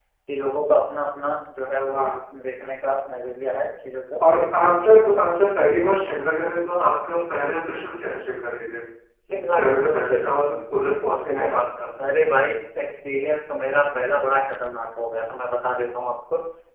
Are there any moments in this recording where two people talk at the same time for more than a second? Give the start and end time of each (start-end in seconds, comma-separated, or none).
none